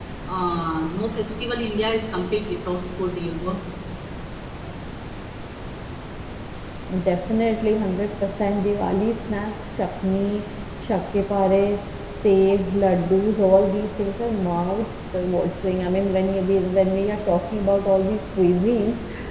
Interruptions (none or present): none